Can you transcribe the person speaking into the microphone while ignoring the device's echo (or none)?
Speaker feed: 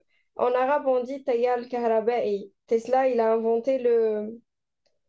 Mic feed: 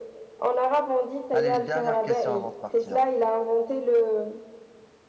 Allez, une dernière question avant de partir.